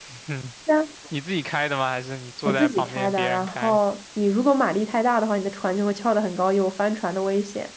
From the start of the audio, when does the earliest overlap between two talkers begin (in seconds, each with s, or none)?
2.4 s